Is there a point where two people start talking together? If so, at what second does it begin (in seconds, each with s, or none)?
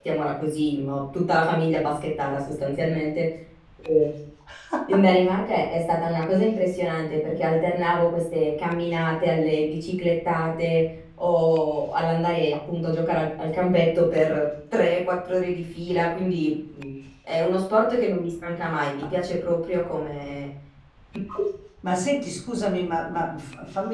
none